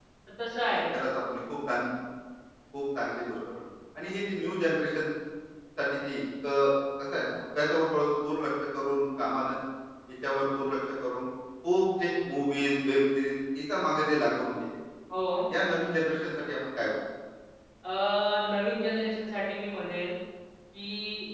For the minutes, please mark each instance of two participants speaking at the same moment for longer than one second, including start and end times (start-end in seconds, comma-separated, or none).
none